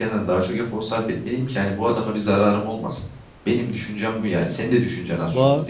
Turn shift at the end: Yes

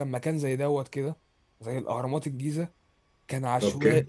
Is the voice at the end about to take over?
No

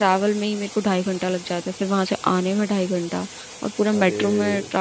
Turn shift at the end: No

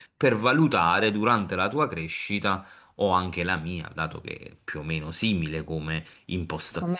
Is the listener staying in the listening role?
Yes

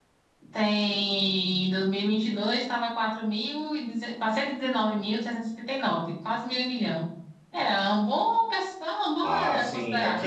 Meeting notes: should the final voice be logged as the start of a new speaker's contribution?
Yes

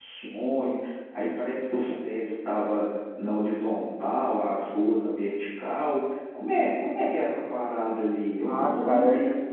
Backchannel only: No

